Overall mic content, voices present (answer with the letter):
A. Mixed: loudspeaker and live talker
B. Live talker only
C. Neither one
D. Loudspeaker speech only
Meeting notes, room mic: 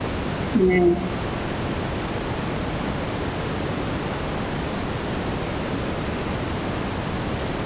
B